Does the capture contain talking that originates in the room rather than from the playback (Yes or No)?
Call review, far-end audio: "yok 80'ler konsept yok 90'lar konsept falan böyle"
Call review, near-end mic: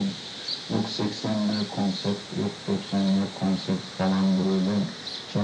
No